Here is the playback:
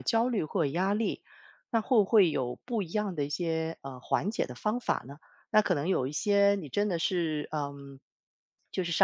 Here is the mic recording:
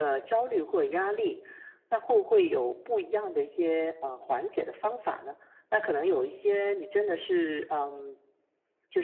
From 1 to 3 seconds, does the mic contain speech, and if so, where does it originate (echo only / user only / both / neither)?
echo only